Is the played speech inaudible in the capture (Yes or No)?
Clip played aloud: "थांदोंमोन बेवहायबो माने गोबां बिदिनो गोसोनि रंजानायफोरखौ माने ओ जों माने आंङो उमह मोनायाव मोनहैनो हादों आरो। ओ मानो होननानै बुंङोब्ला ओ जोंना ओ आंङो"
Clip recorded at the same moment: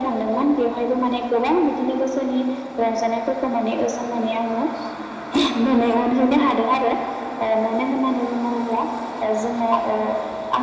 No